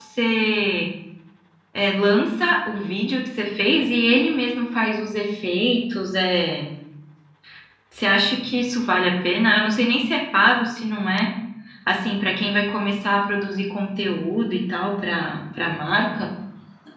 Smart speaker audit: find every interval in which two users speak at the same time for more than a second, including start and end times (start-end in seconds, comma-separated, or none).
none